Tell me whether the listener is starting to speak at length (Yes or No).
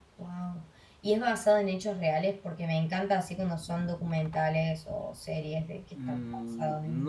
Yes